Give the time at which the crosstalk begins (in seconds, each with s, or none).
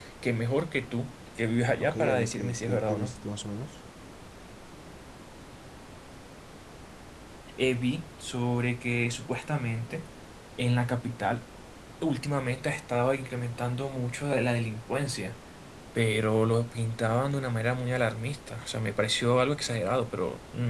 1.8 s